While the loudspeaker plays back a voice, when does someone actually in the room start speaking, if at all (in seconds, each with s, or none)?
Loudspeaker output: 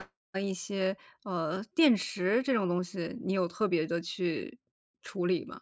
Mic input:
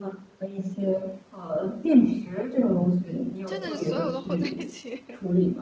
3.5 s